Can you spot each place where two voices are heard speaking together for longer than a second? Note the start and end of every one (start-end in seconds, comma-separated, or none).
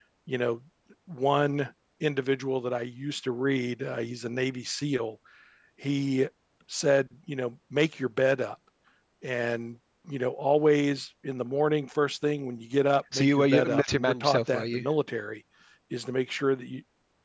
13.1-14.8